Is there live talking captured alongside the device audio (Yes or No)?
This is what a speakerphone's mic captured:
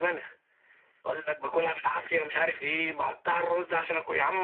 Yes